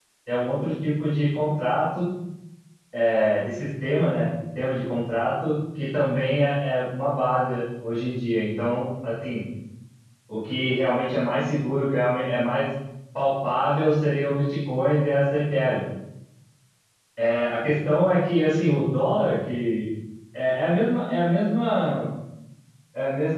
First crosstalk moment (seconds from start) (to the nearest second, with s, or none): none